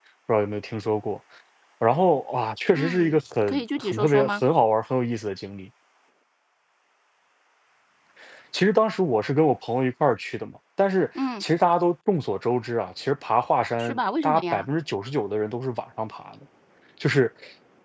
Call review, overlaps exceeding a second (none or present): present